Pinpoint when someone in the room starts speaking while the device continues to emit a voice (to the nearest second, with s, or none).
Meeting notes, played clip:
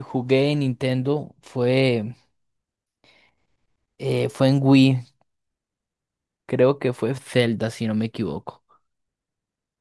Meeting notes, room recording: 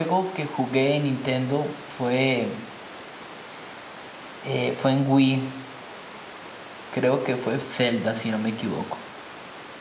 none